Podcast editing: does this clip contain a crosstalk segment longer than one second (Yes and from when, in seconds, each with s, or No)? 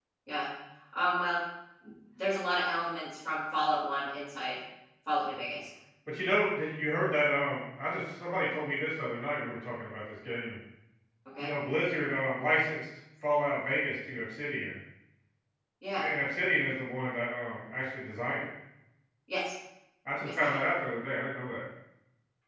No